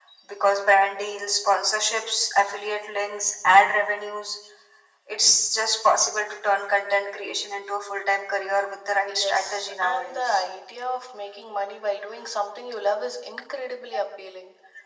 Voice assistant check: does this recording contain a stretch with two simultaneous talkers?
Yes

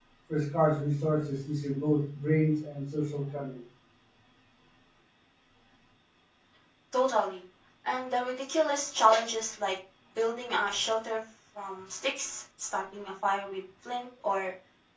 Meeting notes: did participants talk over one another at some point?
No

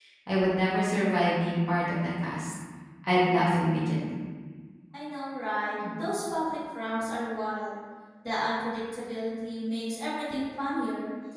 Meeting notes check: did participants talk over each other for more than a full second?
No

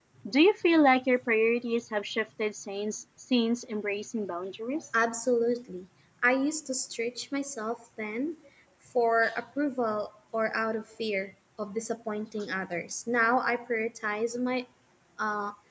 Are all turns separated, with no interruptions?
Yes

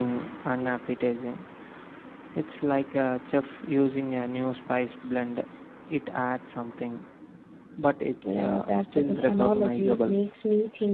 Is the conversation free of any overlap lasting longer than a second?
No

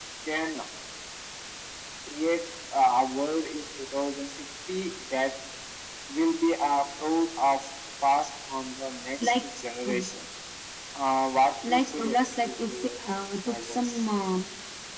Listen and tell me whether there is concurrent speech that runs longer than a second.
Yes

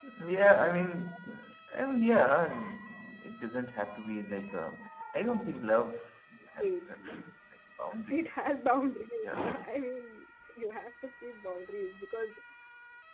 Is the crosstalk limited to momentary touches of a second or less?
Yes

